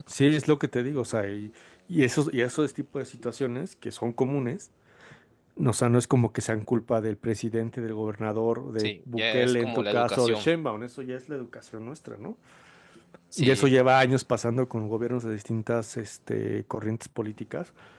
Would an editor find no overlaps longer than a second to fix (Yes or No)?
No